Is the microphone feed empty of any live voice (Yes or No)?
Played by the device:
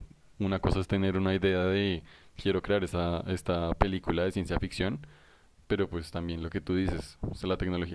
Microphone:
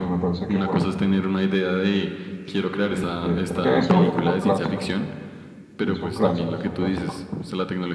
No